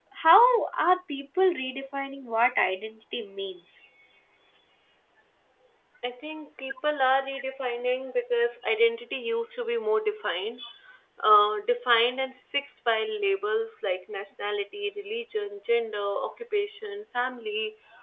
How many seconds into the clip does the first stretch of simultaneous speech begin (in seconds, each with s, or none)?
none